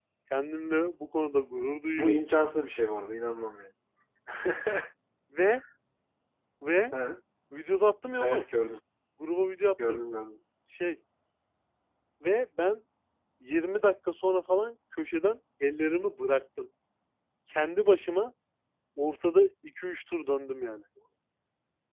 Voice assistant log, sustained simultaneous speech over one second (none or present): none